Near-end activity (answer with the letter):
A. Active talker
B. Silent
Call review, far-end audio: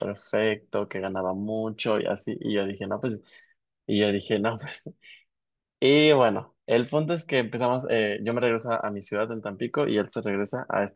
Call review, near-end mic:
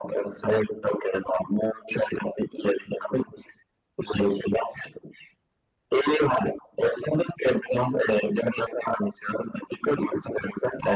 B